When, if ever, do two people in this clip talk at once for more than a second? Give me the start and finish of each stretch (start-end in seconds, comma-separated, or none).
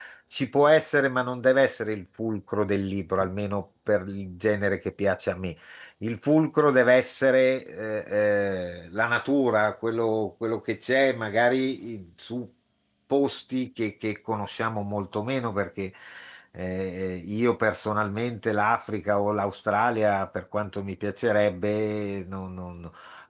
none